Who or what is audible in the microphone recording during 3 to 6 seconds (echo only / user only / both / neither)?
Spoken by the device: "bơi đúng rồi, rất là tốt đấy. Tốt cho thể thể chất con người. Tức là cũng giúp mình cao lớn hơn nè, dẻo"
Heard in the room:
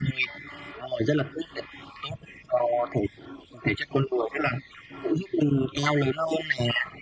echo only